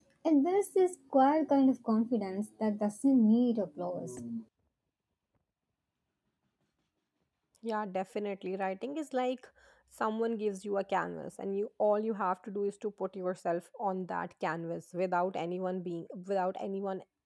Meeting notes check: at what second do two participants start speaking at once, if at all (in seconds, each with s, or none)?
none